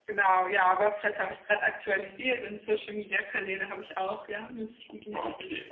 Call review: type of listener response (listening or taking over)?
taking over